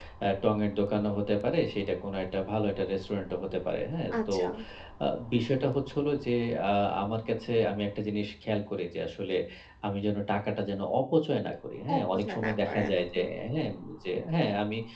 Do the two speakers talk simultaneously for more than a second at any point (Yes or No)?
Yes